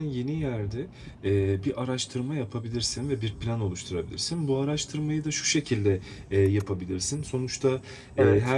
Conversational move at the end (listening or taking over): listening